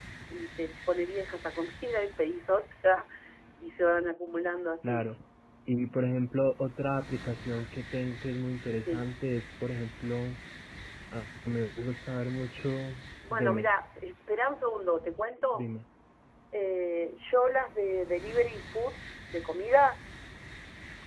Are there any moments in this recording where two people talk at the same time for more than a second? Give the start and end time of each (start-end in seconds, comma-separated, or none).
none